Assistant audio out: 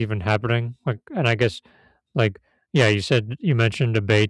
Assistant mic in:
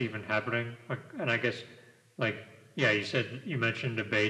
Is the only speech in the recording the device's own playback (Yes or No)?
Yes